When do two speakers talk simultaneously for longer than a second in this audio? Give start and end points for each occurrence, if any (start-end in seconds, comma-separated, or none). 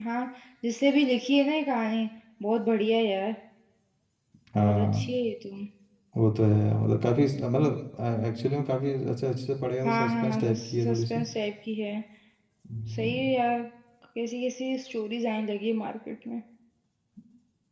9.8-11.2